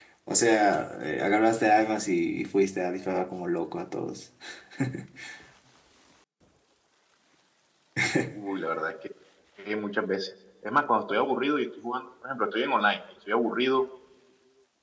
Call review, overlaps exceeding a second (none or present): none